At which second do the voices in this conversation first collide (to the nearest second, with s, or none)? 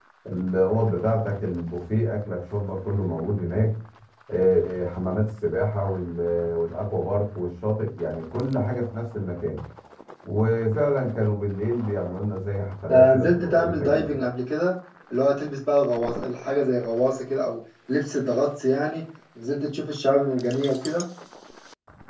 13 s